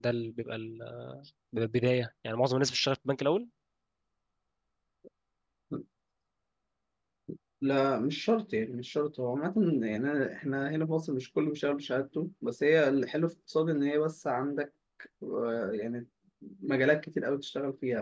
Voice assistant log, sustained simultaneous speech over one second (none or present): none